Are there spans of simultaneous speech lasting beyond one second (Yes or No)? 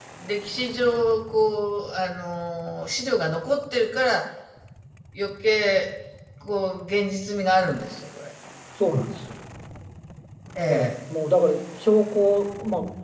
No